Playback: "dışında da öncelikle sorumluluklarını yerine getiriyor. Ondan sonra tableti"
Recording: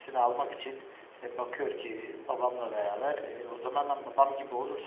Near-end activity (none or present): present